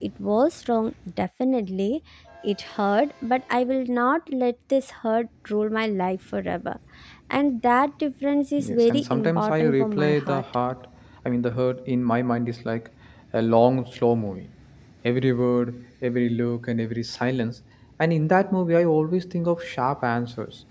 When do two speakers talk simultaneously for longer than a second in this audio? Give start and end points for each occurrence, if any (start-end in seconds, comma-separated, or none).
8.6-10.4